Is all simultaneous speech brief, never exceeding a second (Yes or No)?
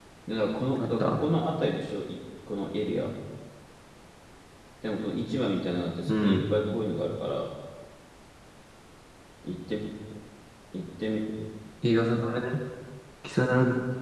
Yes